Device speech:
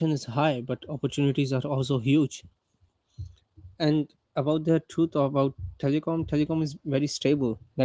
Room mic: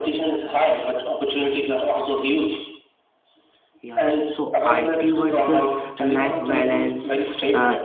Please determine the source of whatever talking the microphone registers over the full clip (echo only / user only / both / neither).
both